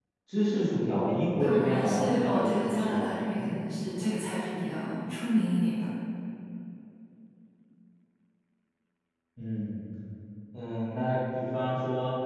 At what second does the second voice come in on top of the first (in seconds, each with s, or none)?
1.4 s